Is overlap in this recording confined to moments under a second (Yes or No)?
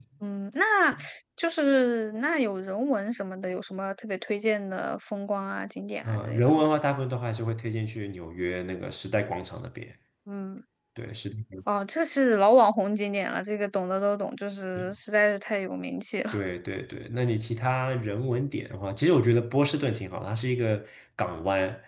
Yes